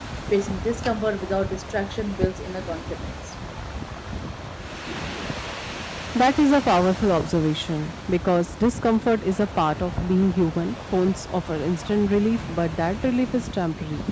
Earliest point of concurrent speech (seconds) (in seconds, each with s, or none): none